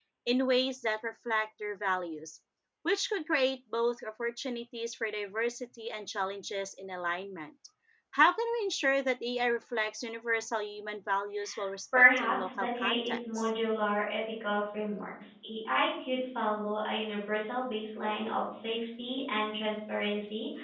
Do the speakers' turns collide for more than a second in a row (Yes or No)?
Yes